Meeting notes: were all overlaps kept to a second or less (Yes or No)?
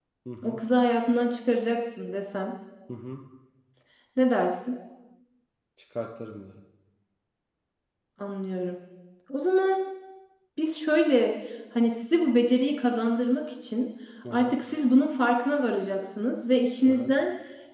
Yes